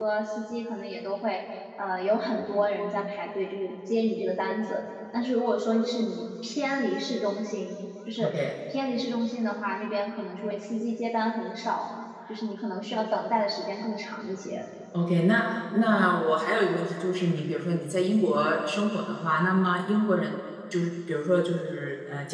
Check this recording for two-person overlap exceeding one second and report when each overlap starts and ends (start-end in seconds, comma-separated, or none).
none